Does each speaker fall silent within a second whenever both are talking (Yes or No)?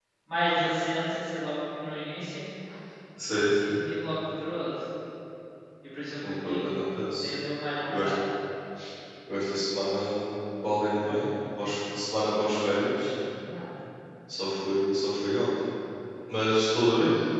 Yes